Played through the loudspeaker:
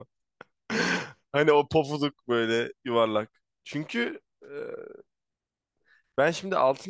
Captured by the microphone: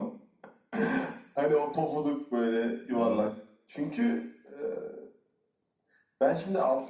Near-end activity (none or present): present